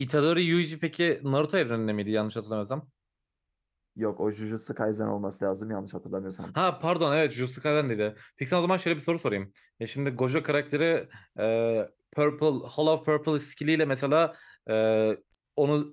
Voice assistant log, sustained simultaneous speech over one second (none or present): none